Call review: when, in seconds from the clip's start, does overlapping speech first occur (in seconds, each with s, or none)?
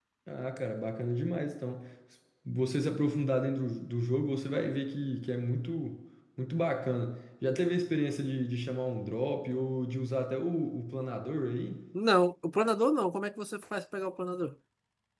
none